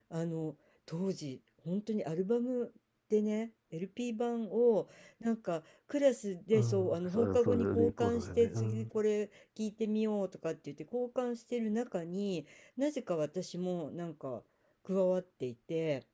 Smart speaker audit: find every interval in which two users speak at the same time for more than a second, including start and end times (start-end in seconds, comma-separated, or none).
6.5-8.9